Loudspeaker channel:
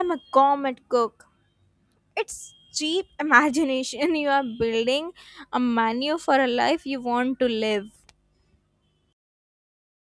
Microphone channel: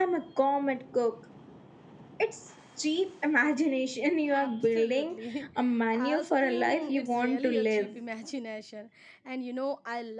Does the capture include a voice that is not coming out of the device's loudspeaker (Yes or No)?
Yes